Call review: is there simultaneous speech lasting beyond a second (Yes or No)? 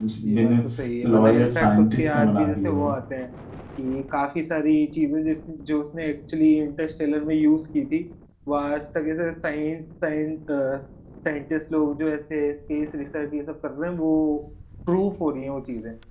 Yes